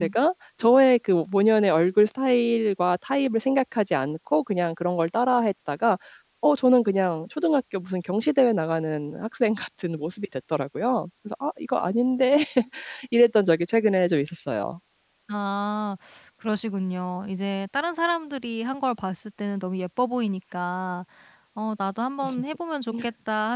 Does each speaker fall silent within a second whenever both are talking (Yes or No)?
Yes